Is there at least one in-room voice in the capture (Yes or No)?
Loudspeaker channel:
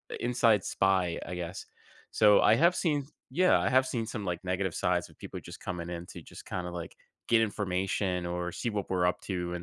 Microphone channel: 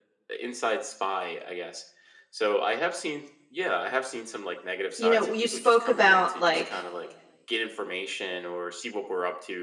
Yes